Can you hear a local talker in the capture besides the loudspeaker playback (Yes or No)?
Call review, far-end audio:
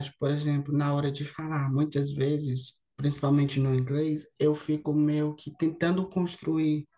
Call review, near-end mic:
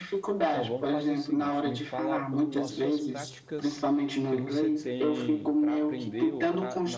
Yes